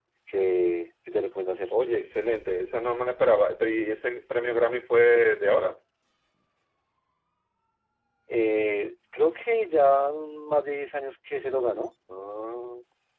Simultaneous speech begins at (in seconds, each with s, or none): none